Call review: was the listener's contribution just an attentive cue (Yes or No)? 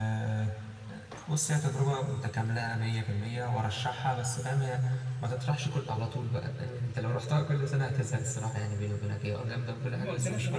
No